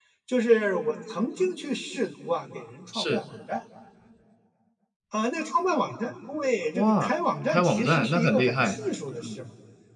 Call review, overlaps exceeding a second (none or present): present